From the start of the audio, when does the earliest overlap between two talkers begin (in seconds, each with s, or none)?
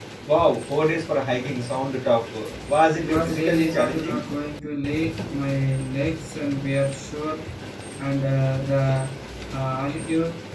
3.0 s